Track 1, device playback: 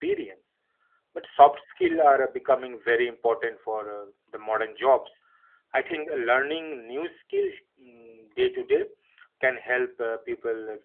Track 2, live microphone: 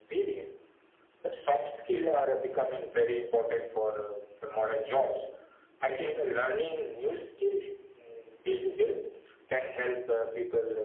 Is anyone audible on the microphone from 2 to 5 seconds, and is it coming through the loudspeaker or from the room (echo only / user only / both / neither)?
echo only